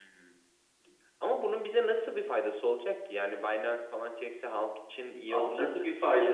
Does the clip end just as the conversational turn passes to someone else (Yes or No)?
Yes